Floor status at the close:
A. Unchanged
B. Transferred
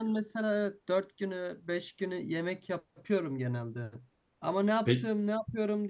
A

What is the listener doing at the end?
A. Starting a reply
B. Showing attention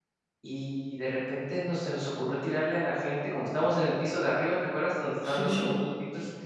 B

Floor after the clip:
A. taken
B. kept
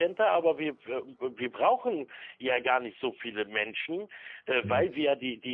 B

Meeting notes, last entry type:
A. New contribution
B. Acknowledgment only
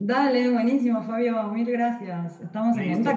A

